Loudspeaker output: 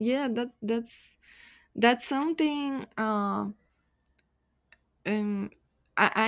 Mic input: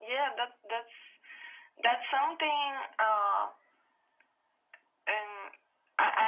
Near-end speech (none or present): none